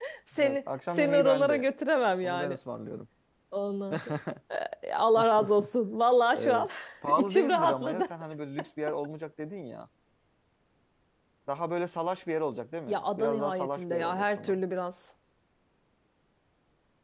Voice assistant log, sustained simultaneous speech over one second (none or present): present